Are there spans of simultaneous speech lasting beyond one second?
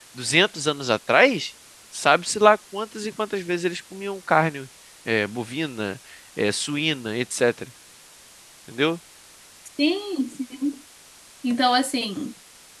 No

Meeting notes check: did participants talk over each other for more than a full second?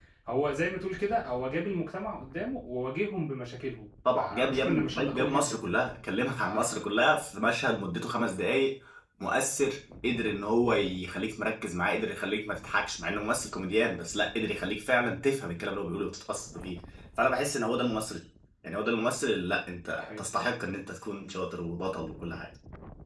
Yes, from 4.2 s

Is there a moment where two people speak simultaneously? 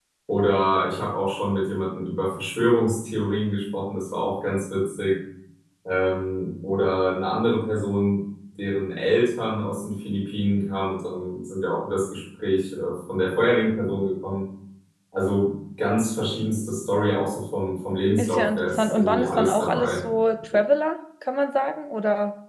Yes, from 18.2 s

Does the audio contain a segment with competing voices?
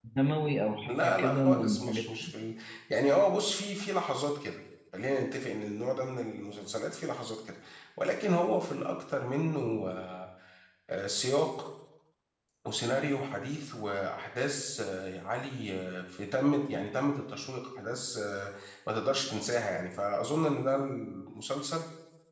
Yes, from 0.9 s

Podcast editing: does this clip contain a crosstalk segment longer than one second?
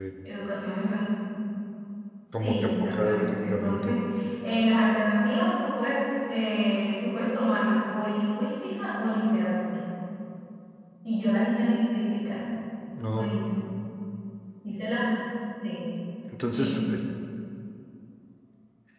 Yes, from 2.4 s

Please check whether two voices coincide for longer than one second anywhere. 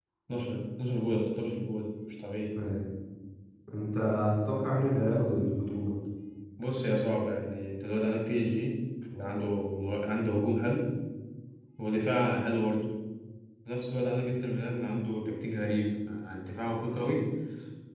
No

